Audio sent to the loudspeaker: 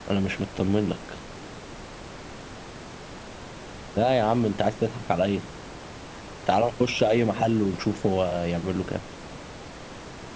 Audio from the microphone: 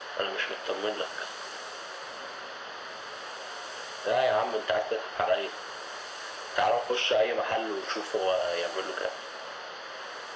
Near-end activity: none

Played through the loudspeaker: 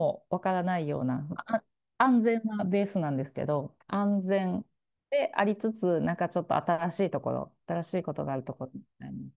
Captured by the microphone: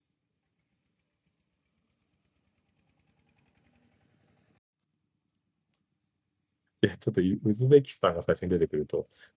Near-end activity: present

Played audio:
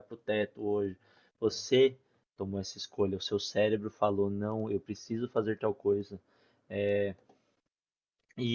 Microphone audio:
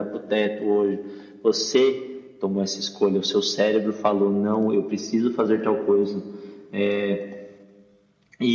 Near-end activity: none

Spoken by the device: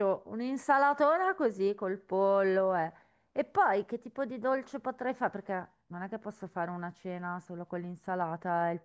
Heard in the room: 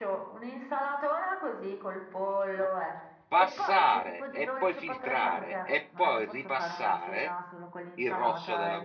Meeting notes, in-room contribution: present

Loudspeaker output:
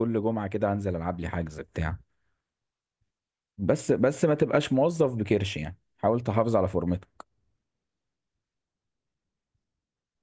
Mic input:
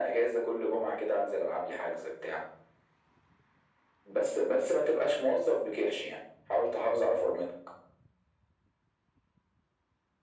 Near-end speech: none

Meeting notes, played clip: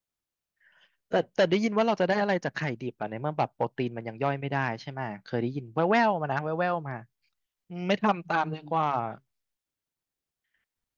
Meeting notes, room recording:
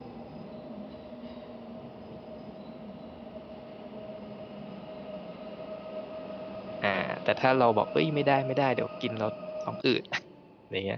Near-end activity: present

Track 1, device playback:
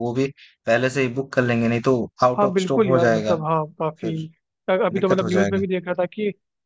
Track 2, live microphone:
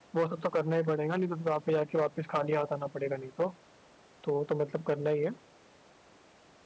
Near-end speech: present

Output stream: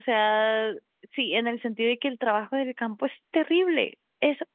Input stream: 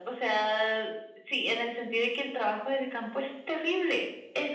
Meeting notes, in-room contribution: none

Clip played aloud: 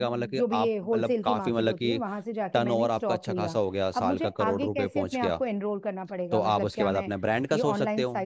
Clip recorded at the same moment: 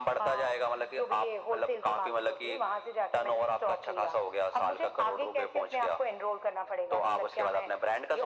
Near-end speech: none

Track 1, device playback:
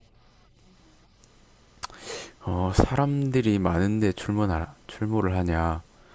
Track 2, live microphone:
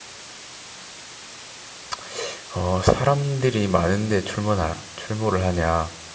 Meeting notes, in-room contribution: none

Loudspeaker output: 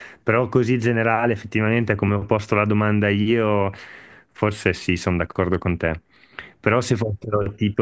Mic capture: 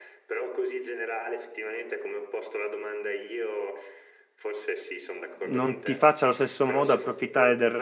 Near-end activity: present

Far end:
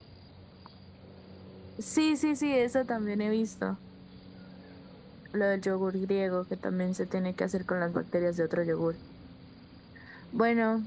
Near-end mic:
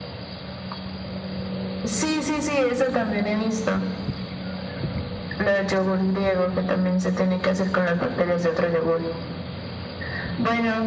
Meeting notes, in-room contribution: none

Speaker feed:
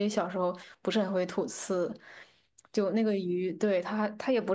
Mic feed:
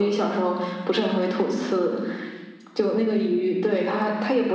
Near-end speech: none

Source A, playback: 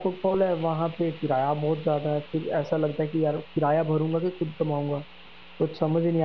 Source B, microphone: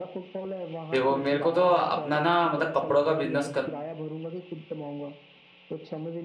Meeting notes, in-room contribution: present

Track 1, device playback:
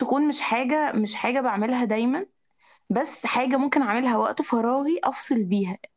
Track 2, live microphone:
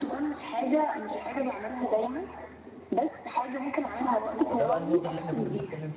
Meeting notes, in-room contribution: present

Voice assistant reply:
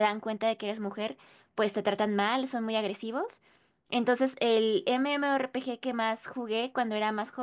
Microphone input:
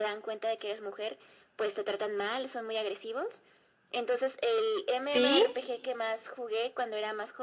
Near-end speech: present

